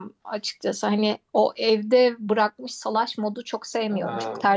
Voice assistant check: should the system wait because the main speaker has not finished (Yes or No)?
Yes